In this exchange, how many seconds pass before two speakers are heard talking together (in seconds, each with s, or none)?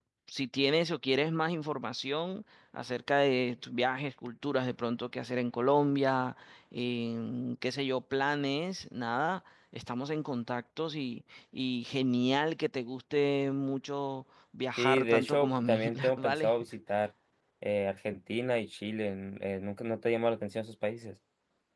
14.8 s